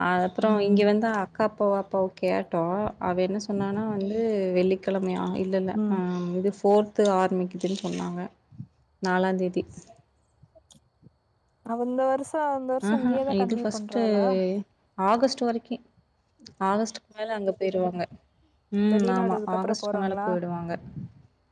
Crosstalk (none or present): present